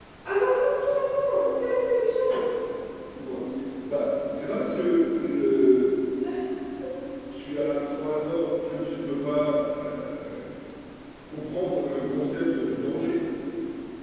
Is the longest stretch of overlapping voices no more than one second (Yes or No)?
Yes